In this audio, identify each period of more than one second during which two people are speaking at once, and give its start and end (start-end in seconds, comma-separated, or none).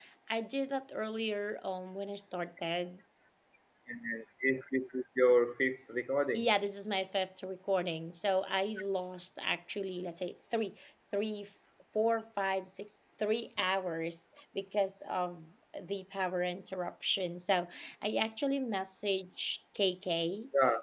none